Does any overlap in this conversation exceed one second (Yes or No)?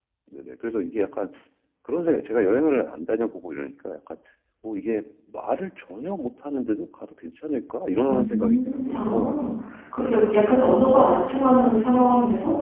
Yes